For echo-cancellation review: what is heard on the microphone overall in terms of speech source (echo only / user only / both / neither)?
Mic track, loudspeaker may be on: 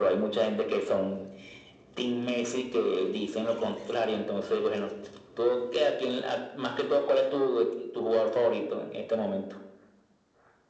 echo only